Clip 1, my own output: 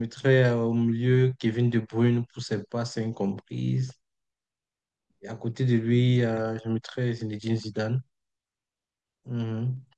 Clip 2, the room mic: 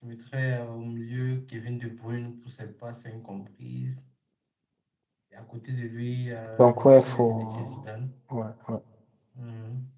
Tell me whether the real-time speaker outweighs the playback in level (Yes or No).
Yes